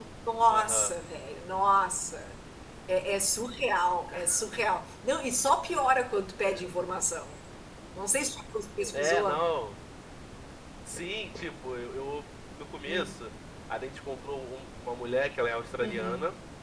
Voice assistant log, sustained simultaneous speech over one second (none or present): none